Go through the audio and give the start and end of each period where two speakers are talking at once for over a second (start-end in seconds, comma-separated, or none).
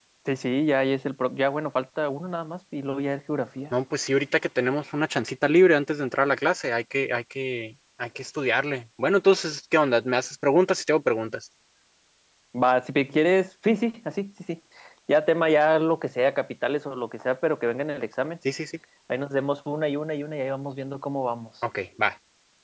none